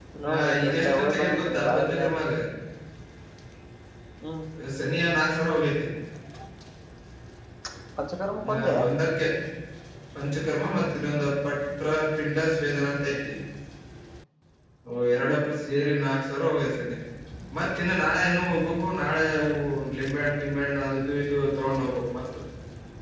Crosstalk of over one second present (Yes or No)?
Yes